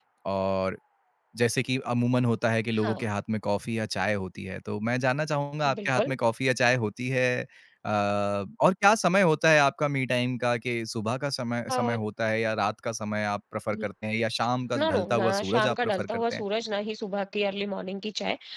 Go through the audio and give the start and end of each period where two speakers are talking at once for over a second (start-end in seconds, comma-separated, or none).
14.8-16.4